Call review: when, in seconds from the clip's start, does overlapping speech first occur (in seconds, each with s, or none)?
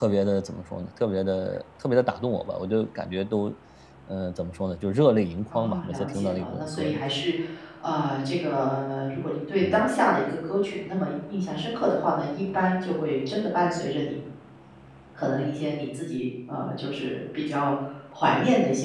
5.5 s